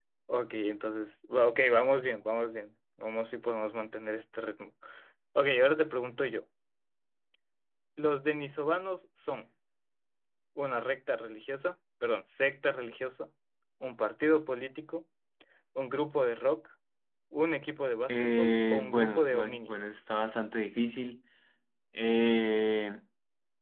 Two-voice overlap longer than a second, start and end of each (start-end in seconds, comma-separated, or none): 18.1-19.8